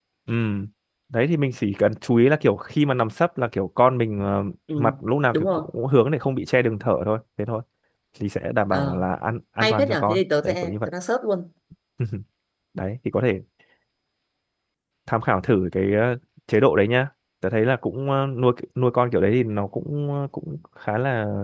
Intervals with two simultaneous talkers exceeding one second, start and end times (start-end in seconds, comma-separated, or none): 9.6-10.9